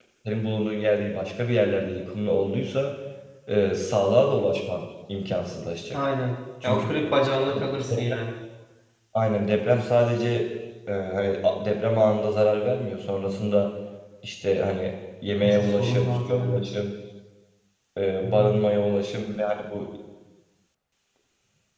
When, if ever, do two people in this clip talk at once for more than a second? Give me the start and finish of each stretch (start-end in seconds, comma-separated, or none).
15.4-16.7